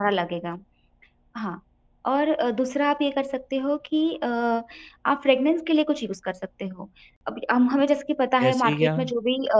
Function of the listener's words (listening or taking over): listening